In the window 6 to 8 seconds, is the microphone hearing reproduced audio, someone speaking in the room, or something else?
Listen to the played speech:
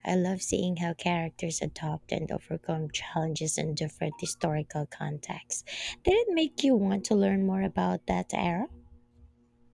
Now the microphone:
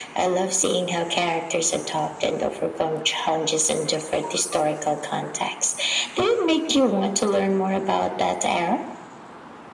echo only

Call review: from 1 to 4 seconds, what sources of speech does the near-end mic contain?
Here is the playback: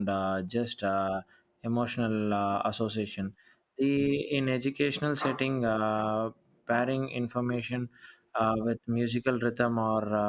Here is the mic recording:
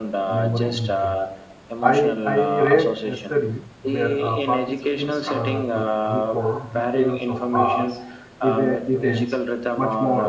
both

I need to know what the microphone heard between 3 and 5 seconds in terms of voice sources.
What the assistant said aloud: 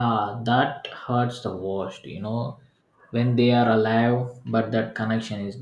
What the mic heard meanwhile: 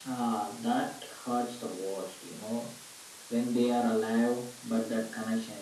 echo only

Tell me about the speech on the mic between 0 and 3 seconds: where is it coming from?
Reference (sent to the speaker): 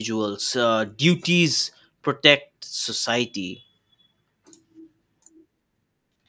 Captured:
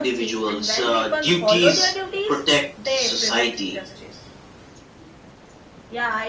both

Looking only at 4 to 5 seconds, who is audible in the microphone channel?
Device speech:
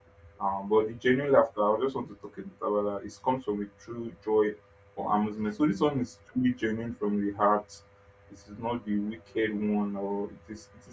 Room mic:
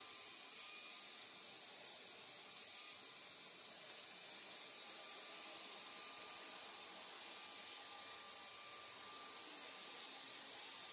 neither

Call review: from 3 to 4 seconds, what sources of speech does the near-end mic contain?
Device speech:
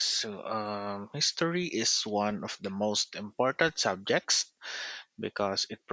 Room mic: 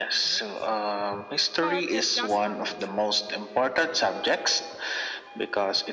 both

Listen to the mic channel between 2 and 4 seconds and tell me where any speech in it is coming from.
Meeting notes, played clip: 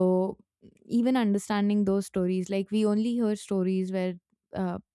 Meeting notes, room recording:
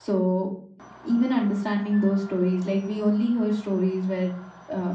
echo only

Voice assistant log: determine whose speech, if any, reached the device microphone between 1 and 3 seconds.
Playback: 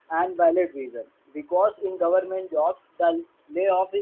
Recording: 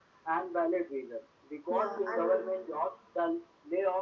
both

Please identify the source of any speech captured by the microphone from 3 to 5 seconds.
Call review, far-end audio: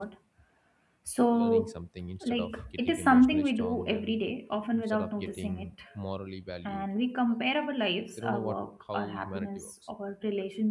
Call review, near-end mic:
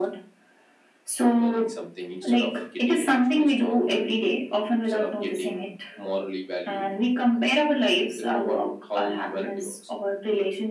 echo only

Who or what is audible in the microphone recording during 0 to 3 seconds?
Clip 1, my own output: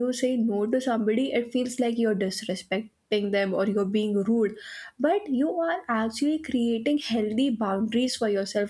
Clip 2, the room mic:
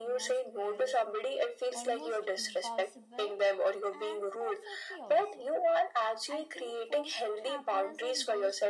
both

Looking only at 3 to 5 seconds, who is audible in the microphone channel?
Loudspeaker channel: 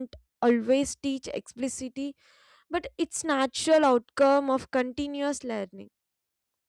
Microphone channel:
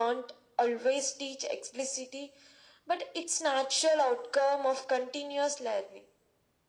echo only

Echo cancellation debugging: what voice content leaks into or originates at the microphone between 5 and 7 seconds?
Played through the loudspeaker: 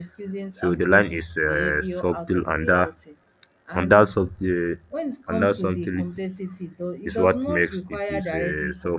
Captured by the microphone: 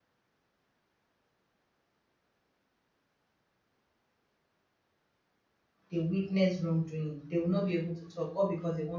user only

